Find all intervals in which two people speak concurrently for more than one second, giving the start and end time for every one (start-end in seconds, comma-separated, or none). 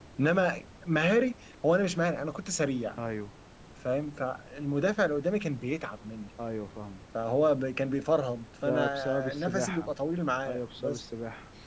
8.6-9.9